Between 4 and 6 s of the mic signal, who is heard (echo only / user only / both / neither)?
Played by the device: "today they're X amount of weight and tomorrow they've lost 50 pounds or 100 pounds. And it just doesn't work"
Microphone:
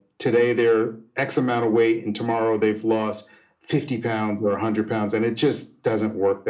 echo only